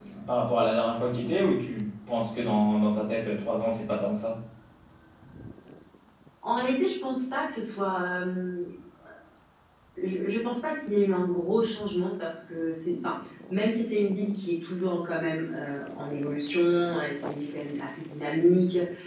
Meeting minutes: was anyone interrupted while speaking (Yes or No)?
No